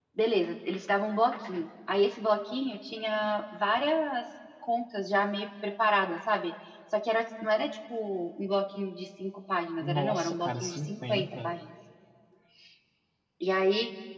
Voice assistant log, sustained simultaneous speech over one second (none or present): present